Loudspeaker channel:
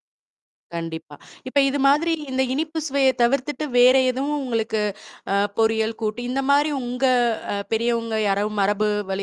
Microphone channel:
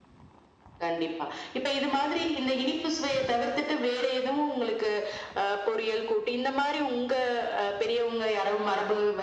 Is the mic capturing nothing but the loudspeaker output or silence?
Yes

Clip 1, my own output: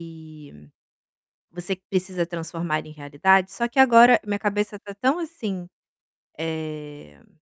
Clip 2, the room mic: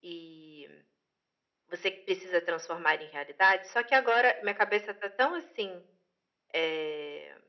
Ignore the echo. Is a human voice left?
No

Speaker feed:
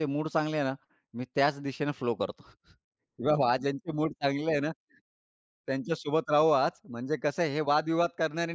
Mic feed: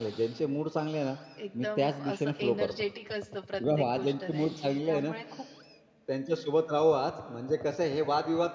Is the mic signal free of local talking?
No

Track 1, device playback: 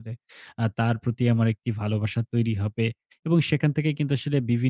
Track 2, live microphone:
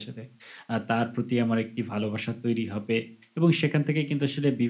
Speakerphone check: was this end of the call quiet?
Yes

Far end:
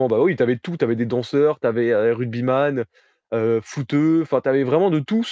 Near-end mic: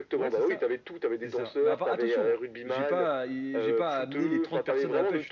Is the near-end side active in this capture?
Yes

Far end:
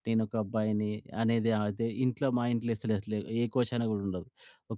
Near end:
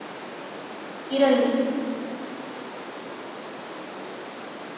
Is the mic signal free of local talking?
No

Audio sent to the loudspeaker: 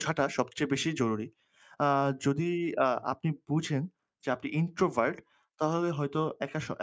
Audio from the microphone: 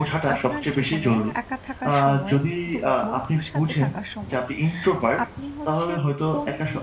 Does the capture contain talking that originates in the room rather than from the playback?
Yes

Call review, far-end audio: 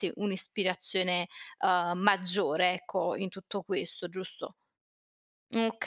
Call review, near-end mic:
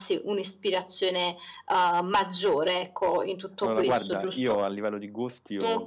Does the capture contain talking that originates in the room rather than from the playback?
Yes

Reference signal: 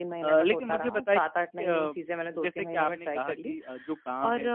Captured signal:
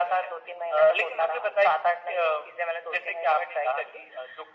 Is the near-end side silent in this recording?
Yes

